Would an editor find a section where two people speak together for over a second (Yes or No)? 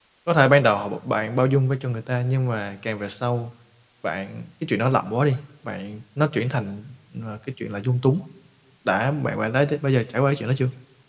No